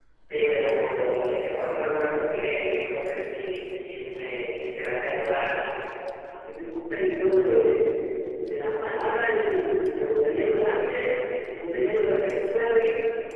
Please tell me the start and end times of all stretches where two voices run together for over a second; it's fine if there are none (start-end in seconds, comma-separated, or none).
none